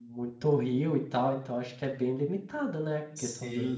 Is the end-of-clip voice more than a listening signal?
Yes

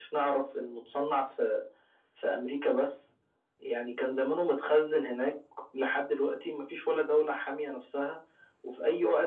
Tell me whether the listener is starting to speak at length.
No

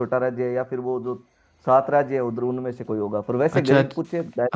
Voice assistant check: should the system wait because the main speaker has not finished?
No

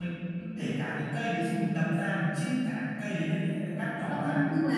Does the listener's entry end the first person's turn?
Yes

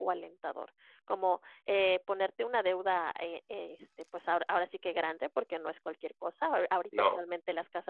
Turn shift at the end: No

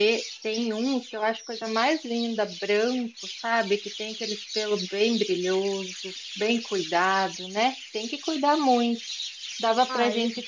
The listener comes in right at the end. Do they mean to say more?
No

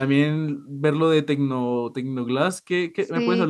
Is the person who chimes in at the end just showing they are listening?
No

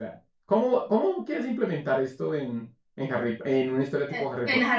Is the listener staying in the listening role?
No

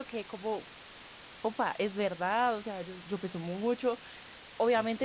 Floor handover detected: No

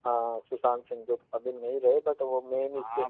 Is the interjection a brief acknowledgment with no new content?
No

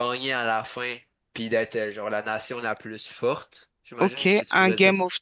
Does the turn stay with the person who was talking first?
No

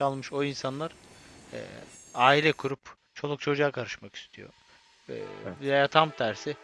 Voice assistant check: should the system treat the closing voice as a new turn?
No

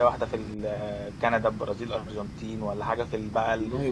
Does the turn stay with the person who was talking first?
Yes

